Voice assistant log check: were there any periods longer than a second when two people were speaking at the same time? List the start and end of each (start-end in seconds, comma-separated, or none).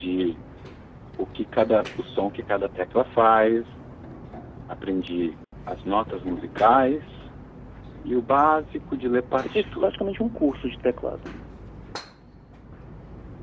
none